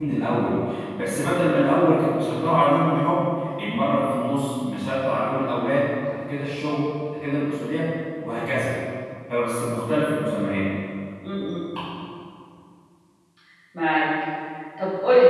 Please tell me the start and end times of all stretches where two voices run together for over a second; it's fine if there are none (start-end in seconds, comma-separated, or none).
none